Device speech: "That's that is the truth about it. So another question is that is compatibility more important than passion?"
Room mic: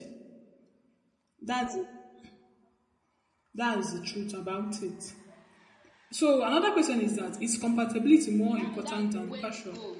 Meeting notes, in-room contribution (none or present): present